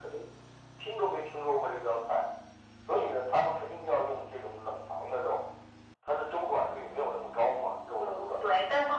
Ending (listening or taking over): taking over